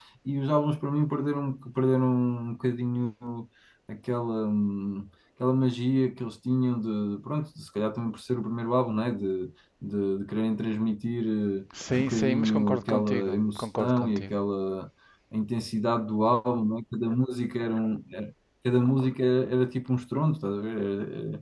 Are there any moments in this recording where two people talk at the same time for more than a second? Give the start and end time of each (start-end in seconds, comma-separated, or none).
11.9-14.3